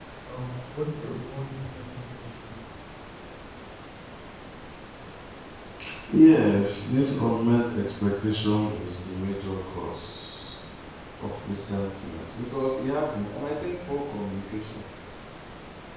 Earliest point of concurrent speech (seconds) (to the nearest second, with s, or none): none